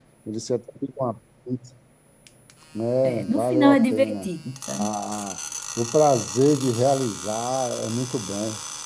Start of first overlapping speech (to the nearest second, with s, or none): 3 s